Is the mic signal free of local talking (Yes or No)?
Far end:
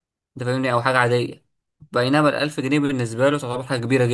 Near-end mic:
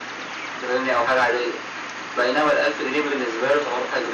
Yes